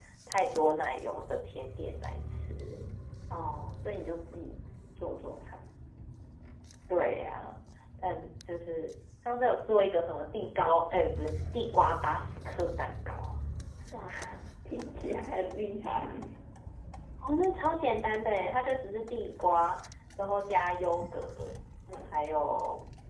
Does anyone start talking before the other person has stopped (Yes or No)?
No